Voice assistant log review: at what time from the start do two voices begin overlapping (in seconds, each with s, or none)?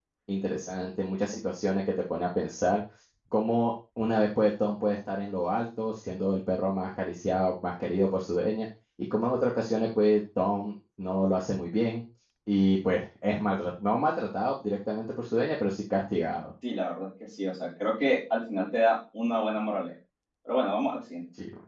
none